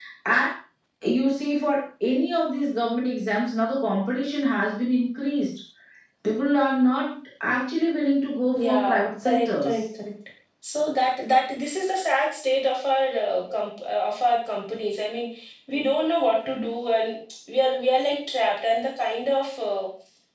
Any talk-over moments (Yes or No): Yes